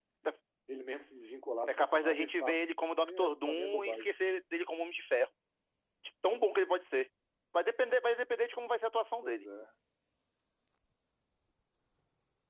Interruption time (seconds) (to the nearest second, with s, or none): 2 s